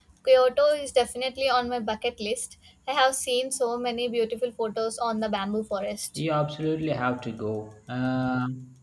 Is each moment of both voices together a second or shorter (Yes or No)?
Yes